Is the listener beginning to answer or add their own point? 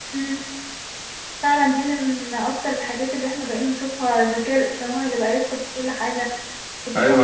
Yes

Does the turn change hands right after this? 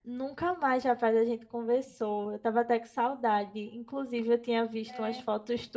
No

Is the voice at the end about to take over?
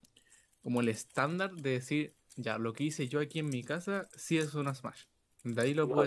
Yes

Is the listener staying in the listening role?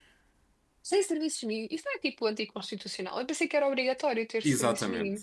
No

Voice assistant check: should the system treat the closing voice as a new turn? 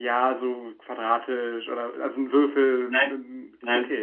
No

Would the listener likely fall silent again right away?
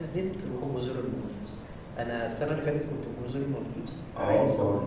Yes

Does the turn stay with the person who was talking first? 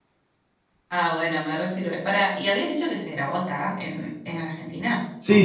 No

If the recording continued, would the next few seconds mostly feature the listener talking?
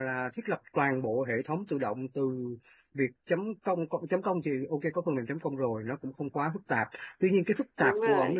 No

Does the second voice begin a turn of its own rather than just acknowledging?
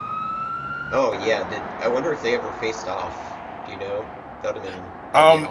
Yes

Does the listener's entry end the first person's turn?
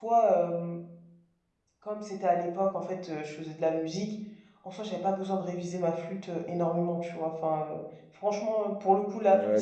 Yes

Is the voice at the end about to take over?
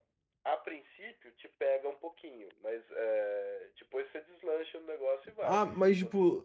Yes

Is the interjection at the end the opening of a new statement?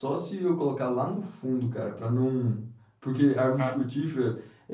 No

